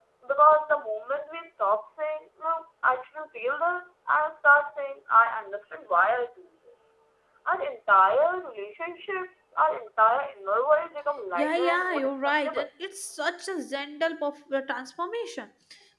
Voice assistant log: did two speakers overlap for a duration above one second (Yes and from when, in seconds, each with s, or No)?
Yes, from 11.4 s